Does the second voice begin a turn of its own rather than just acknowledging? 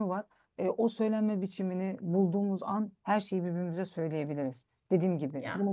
No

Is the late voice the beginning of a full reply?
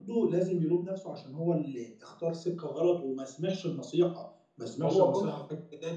No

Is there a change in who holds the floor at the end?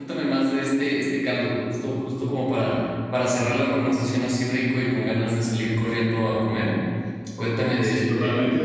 Yes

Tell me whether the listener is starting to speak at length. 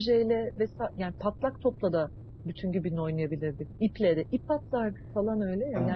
Yes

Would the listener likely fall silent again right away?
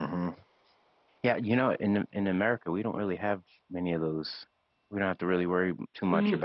No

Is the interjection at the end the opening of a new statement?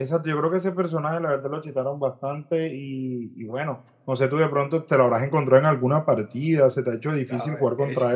Yes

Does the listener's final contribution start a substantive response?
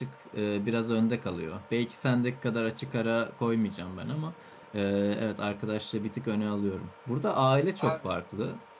No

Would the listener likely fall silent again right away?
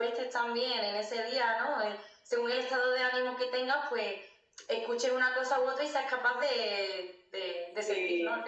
No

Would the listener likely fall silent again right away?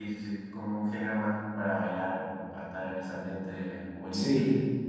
Yes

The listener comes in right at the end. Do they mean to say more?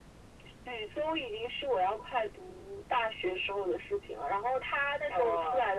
No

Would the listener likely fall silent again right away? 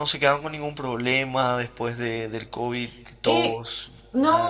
No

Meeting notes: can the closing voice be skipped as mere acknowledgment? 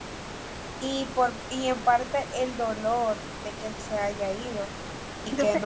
Yes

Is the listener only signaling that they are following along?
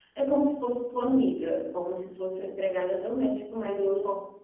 No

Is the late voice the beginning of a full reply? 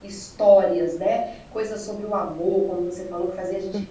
No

